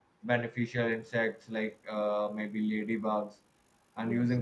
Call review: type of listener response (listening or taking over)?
listening